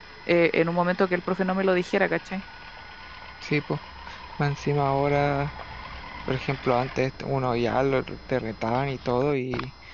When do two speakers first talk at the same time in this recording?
none

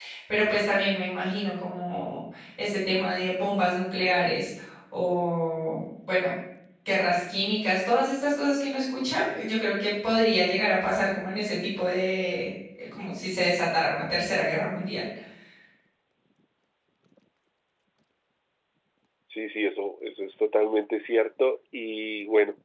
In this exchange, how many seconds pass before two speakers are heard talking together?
none

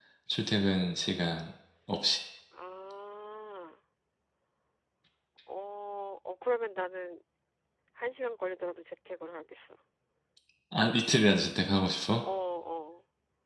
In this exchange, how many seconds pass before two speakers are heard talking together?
none

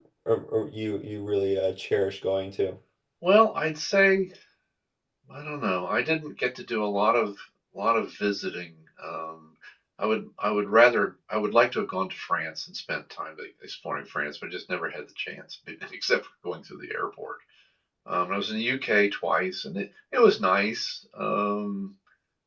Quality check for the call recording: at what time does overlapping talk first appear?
none

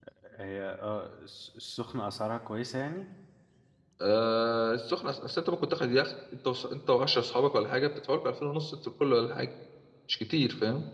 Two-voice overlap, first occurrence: none

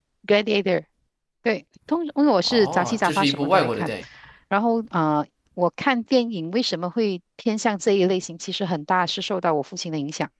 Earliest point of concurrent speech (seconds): 2.4 s

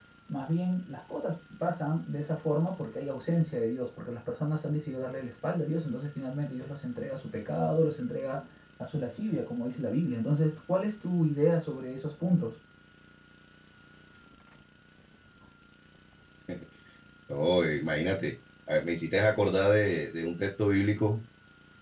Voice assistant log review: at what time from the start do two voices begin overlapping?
none

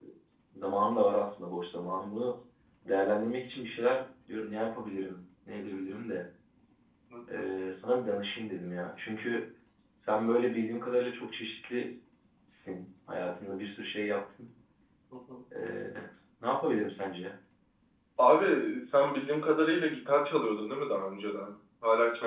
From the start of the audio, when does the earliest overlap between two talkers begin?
none

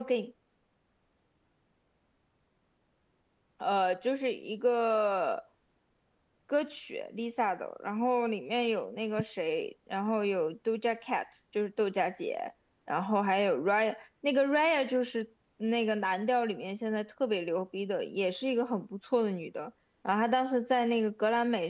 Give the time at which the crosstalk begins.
none

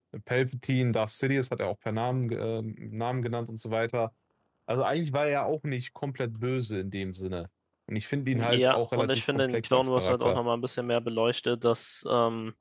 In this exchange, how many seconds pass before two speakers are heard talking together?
8.3 s

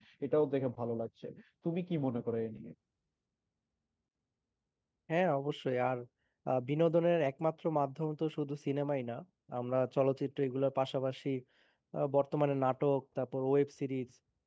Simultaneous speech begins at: none

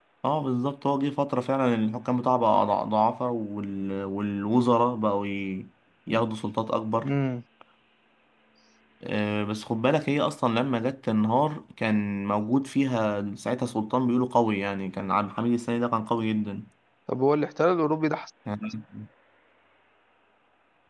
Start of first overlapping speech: none

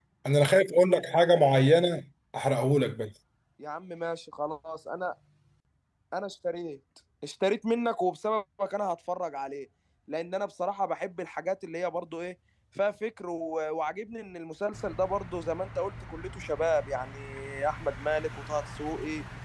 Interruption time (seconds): none

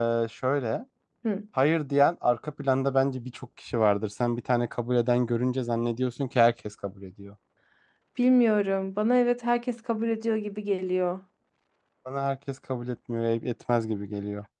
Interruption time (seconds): none

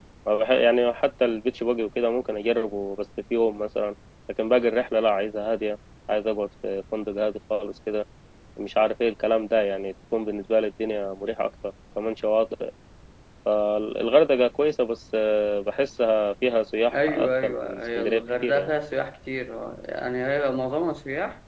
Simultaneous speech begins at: 16.9 s

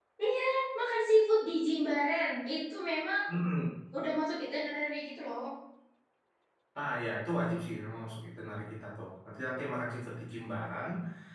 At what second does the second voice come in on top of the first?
none

